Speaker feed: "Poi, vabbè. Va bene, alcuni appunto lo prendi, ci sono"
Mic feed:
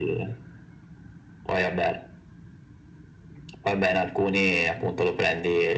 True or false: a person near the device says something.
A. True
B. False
B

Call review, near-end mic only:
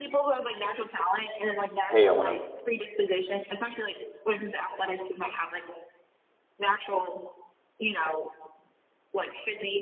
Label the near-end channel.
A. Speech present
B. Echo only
A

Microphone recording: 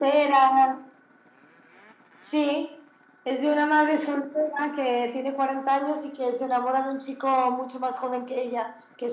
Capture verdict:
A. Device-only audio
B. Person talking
A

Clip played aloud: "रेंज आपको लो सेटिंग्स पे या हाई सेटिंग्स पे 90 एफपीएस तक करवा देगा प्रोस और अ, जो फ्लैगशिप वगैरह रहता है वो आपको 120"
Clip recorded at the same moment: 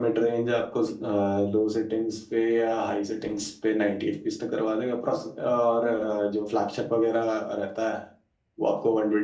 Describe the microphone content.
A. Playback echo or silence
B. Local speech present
A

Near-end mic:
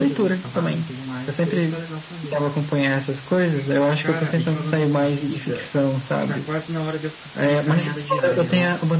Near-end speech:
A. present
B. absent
A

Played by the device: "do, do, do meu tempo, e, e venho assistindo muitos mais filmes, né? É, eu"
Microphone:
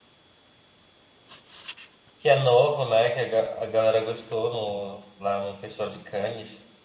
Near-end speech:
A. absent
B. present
B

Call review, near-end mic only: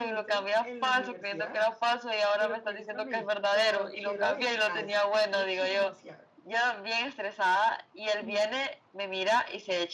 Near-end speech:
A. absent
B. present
B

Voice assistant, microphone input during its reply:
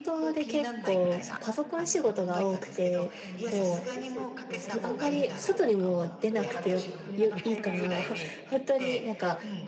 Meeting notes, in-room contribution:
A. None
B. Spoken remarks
B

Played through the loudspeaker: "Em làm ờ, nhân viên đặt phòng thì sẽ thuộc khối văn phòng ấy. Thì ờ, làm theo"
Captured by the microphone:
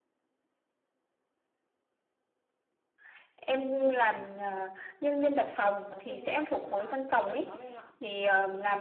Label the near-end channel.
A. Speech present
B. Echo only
A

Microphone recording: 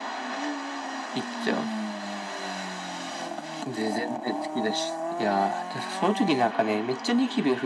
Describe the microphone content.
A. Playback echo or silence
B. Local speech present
A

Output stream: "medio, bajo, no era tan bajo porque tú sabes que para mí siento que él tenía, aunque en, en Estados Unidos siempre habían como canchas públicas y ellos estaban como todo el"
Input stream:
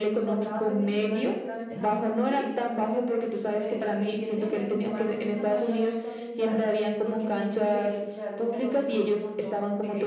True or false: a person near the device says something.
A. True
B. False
A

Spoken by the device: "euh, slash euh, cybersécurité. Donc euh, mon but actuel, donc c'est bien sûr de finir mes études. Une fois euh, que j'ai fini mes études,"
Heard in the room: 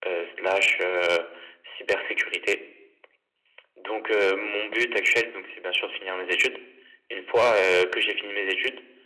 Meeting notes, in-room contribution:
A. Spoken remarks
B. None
B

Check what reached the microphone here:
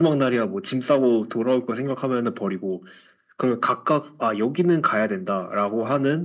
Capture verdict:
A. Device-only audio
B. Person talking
A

